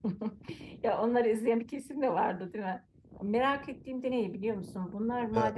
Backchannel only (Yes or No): Yes